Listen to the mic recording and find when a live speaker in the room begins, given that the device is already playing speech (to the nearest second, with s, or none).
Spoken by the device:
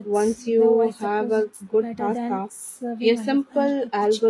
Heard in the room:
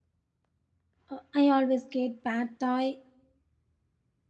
1 s